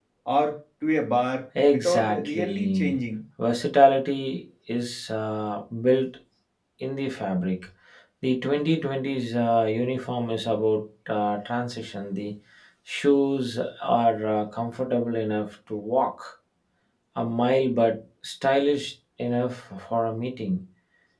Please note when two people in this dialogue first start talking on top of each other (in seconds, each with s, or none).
1.6 s